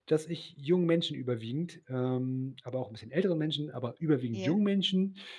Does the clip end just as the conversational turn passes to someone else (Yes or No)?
No